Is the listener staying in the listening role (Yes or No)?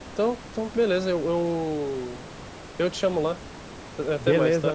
No